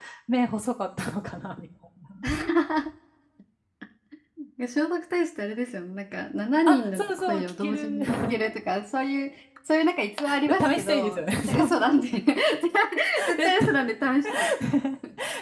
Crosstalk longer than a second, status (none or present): present